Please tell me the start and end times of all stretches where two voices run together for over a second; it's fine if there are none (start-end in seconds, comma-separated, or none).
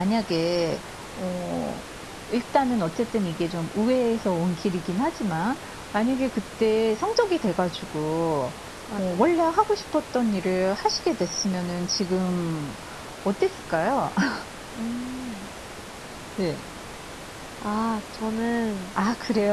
none